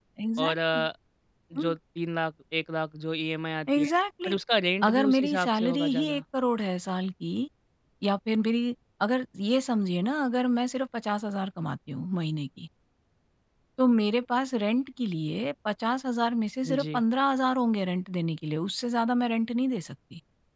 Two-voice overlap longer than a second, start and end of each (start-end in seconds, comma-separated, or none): 4.9-6.2